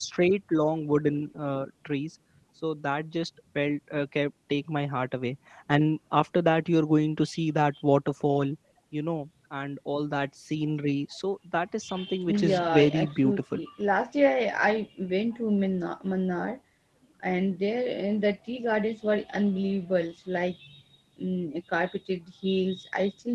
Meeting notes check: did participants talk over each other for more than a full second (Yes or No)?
Yes